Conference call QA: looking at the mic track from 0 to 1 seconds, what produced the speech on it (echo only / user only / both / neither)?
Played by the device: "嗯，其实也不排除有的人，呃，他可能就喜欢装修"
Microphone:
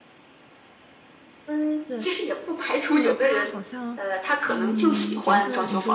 neither